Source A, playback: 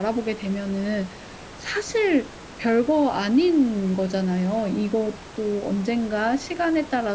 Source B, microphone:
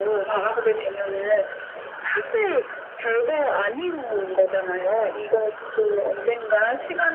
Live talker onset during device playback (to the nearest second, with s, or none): none